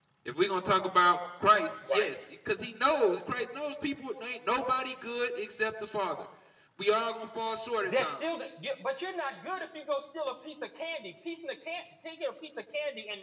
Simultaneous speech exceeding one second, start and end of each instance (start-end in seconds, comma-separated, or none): none